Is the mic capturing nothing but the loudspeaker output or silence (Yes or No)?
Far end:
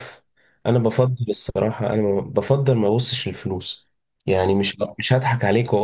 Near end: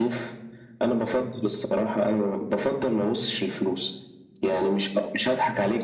Yes